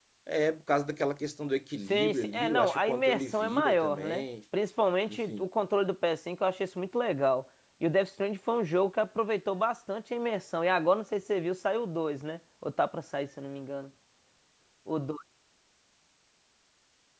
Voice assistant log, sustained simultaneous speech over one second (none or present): present